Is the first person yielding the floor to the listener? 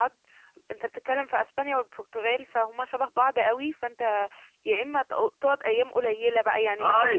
Yes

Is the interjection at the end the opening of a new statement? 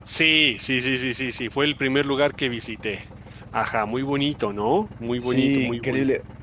Yes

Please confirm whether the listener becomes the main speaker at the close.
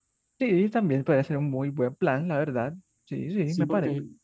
Yes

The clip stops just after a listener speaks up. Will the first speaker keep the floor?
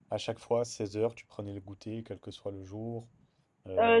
No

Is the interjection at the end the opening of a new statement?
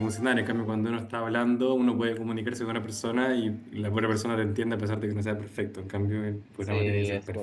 Yes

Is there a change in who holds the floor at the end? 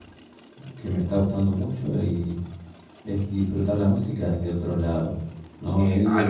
Yes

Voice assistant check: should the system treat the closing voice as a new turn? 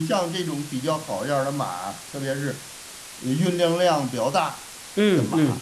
No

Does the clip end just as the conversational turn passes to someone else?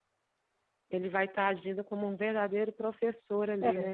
Yes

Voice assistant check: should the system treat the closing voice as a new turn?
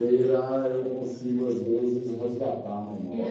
Yes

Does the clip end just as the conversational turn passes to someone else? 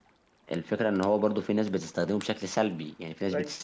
No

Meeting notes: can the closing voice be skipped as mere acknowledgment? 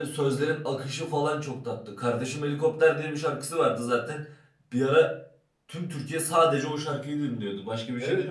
No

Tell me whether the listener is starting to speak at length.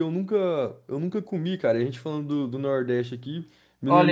Yes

